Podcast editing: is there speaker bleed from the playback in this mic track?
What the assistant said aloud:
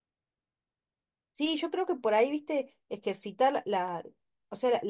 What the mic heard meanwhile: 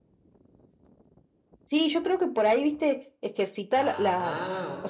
Yes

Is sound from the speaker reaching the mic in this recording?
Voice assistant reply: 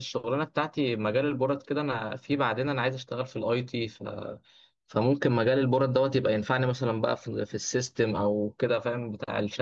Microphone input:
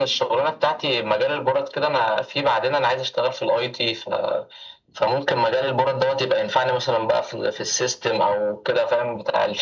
Yes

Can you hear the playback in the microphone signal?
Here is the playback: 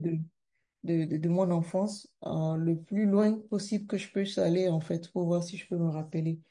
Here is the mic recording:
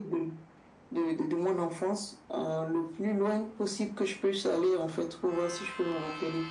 Yes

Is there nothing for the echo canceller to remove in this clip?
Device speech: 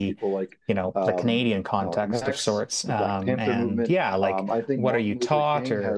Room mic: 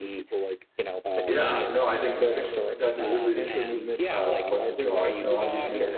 No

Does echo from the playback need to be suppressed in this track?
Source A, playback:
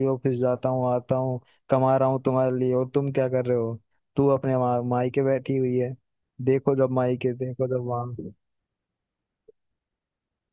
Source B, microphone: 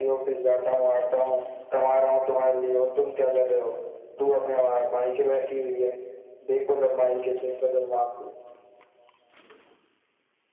Yes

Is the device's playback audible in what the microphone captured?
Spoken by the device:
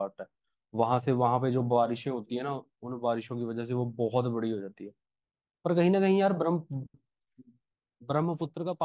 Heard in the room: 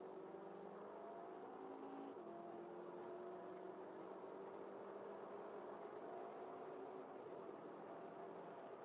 No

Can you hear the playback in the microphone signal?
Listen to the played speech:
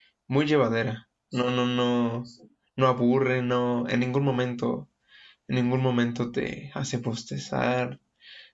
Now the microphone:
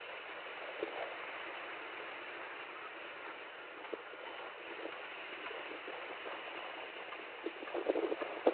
No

